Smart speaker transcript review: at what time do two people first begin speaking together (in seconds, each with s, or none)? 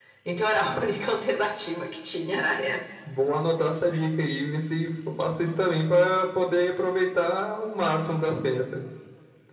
none